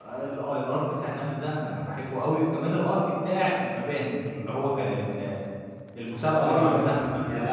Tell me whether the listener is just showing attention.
No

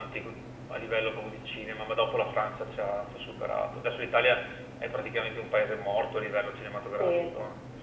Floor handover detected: Yes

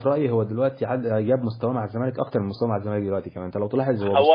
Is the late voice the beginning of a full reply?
Yes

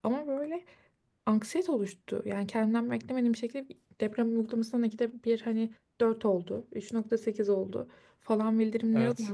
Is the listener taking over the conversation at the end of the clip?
No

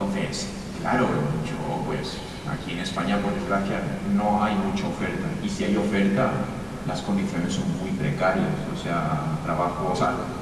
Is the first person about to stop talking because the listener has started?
No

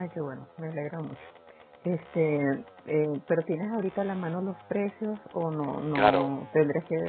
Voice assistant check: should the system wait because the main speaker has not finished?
No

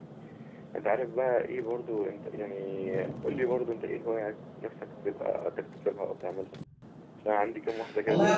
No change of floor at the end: No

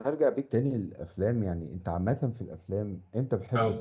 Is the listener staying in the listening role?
Yes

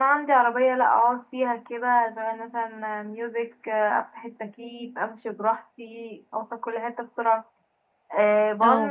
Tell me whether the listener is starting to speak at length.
No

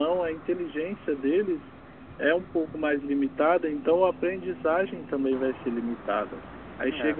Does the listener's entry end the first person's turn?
No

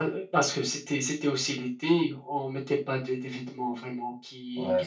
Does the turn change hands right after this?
No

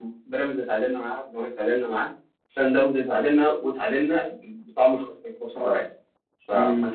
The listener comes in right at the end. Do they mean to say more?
Yes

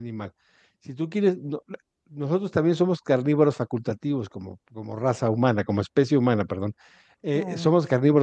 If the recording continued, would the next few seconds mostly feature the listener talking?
No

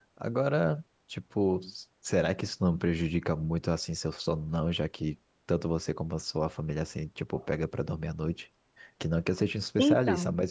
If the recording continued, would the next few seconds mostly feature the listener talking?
No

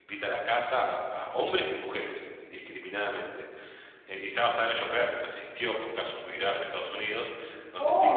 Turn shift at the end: Yes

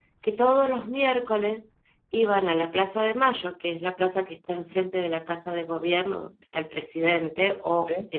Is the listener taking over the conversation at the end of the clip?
No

